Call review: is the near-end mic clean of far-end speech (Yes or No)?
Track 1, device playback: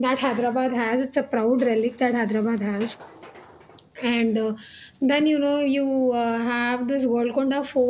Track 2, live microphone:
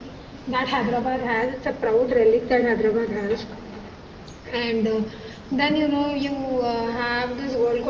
No